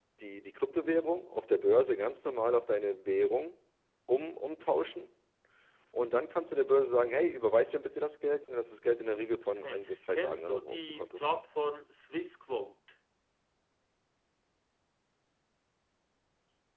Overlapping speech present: Yes, from 9.5 s

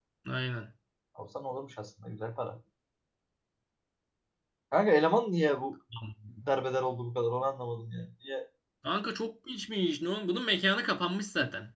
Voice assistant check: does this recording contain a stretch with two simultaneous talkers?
No

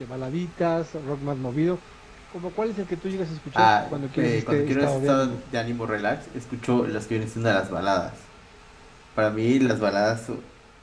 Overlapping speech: Yes, from 3.6 s

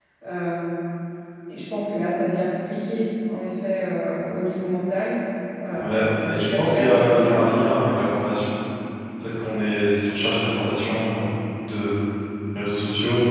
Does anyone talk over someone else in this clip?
Yes, from 5.8 s

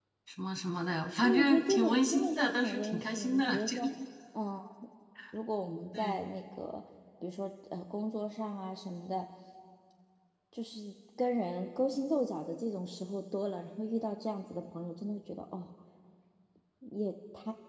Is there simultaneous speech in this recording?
Yes, from 1.2 s

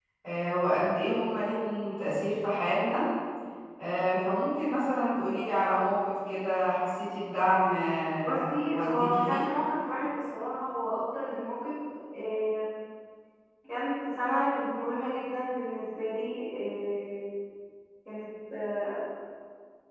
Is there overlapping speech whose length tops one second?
Yes, from 8.2 s

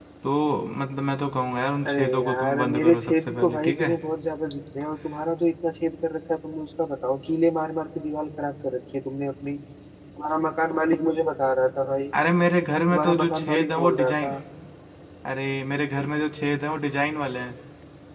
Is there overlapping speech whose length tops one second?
Yes, from 1.9 s

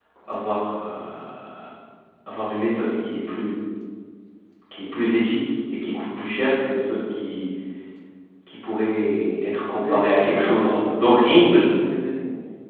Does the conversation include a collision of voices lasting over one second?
Yes, from 9.8 s

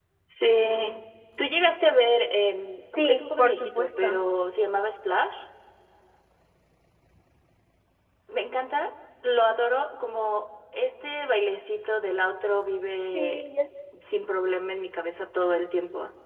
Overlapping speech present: Yes, from 3.0 s

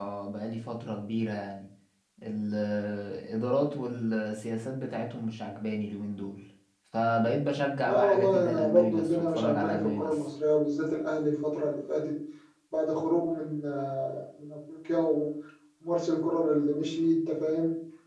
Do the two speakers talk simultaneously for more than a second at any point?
Yes, from 7.8 s

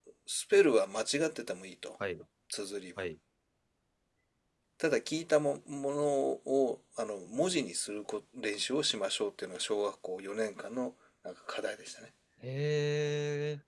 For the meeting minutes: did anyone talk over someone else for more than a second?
No

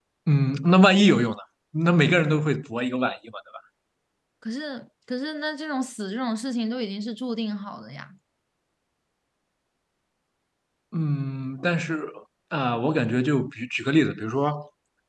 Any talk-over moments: No

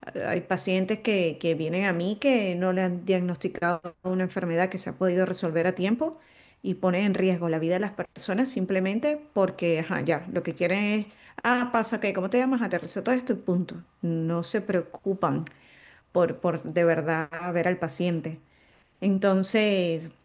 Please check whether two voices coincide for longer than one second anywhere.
No

